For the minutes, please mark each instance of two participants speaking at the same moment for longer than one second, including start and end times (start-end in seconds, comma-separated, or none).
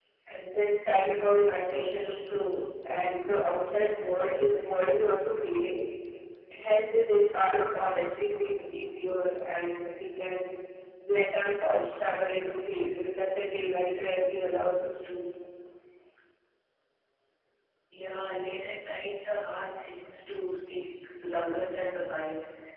none